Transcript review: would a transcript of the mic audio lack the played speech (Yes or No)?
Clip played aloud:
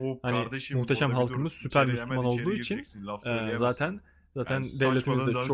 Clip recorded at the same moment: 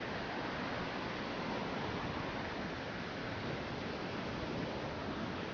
Yes